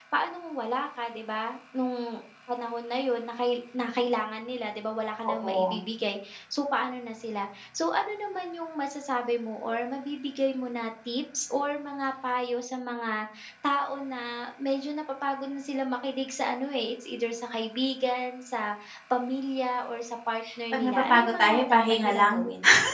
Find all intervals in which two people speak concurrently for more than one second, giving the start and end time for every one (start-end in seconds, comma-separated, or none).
20.7-22.4